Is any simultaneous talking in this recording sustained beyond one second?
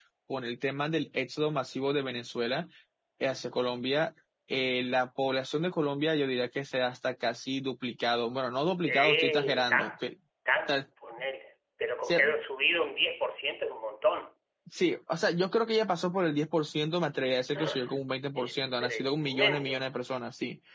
Yes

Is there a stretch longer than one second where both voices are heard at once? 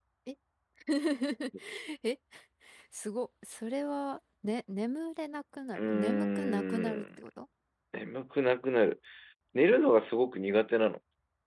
Yes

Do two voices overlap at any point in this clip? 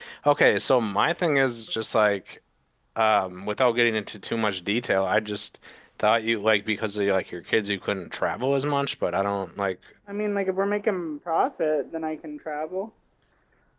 No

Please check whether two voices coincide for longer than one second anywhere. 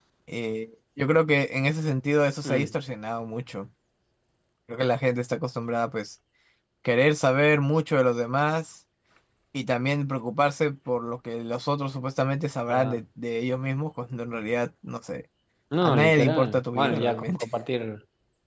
Yes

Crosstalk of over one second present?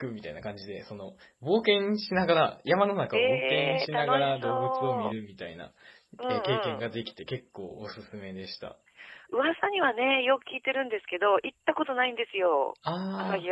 Yes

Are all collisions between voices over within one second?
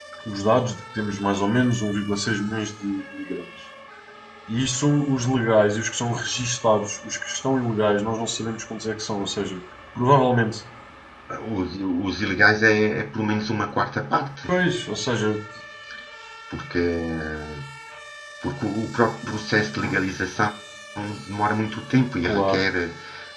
Yes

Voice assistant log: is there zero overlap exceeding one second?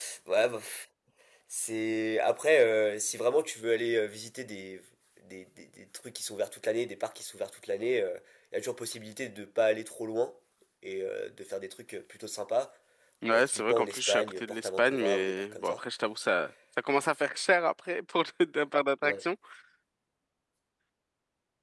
No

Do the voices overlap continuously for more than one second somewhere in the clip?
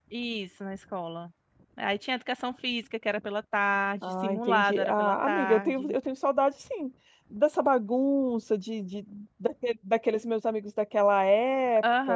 Yes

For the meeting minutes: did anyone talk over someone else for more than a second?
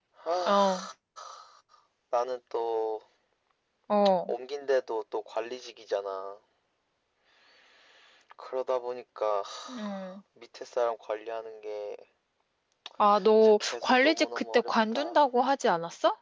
Yes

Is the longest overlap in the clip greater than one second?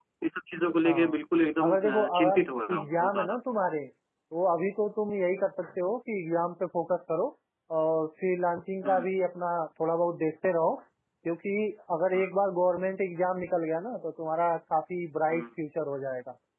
Yes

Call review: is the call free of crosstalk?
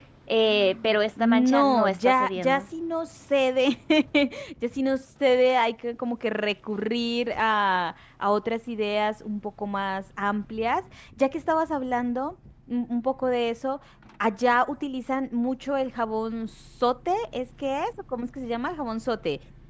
No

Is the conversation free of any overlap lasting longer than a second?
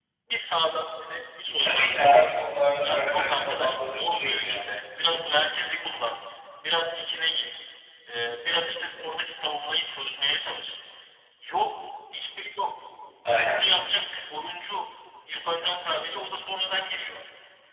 No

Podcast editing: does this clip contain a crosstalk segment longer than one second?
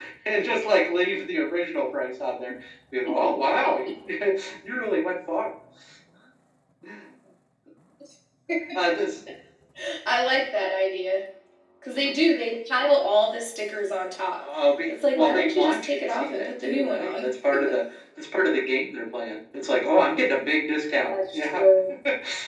Yes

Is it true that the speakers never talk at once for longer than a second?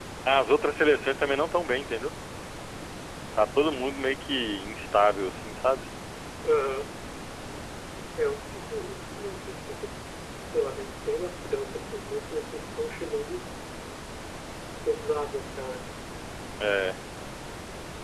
Yes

